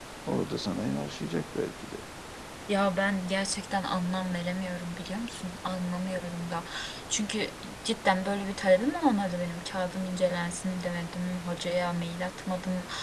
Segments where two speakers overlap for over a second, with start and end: none

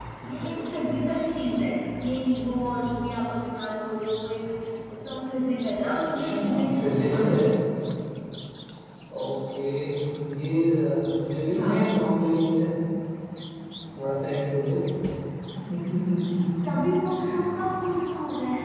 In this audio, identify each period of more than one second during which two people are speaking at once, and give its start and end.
5.9-7.3

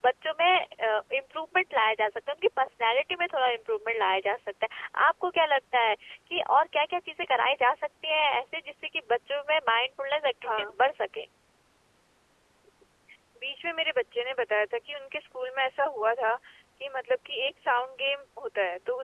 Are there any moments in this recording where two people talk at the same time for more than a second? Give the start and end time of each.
none

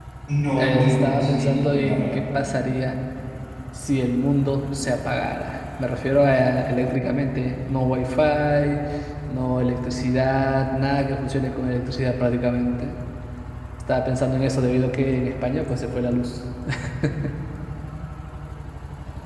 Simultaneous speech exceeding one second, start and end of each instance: 0.6-2.1

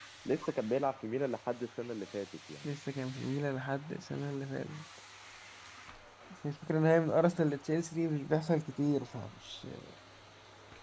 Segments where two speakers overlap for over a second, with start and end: none

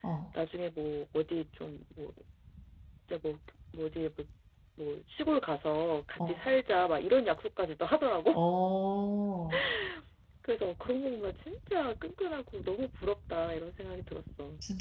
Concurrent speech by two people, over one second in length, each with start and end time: none

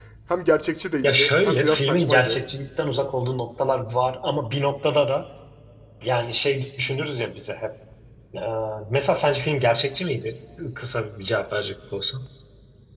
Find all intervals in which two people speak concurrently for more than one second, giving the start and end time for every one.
1.0-2.4

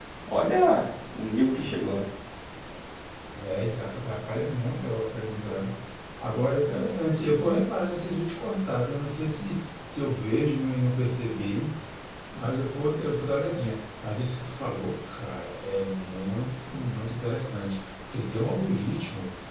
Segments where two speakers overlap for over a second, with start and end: none

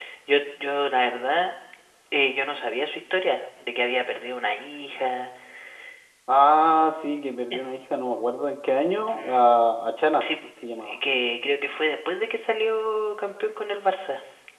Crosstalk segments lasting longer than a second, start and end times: none

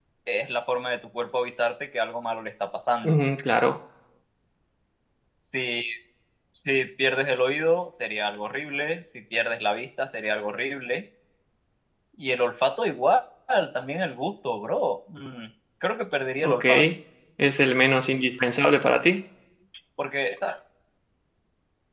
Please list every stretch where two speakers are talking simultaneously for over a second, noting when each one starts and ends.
none

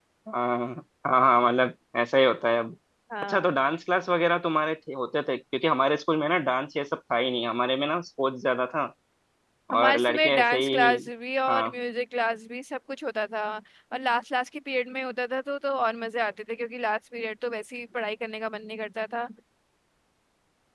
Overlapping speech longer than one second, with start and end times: 9.8-11.0

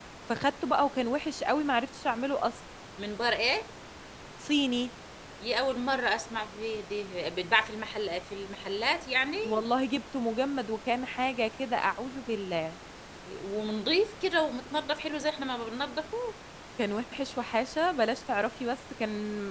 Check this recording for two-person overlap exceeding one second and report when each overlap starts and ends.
none

